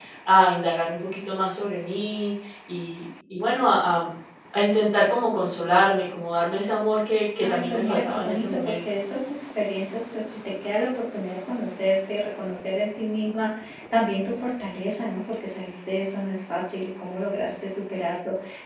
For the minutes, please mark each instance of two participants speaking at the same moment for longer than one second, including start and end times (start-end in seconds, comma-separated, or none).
7.4-8.7